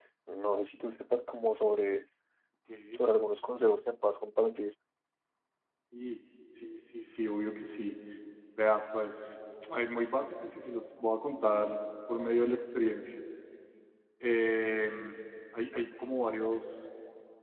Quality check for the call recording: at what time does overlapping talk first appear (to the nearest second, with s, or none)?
none